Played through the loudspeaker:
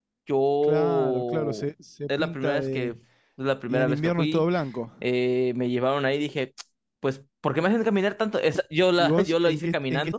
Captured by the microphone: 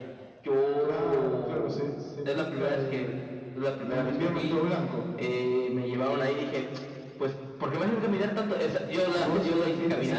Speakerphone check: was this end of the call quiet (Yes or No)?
No